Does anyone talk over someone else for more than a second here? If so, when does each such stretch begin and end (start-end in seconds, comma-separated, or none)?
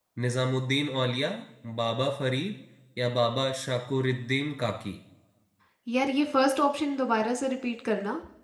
none